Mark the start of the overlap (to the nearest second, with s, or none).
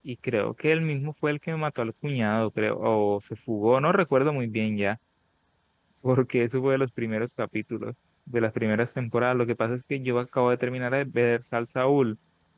none